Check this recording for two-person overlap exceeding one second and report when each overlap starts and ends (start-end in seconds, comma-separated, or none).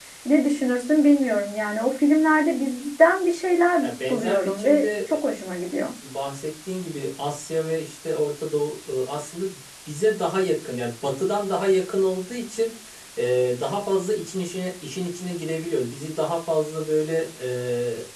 3.8-5.1